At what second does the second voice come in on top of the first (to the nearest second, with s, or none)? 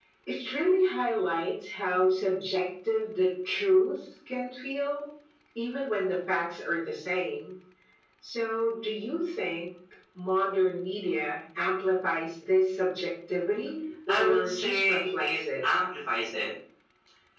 14 s